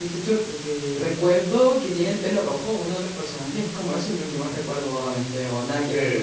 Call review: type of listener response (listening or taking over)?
taking over